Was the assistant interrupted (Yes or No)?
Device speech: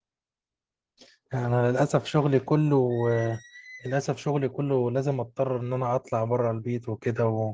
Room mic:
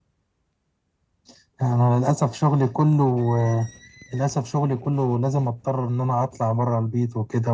No